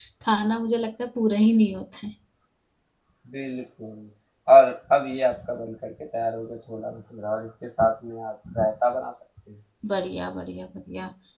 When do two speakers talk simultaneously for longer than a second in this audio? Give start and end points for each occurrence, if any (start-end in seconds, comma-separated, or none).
none